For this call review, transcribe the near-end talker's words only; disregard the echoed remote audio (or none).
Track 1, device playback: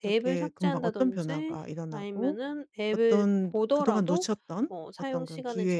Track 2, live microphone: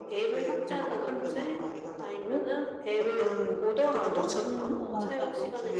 음 맞아요.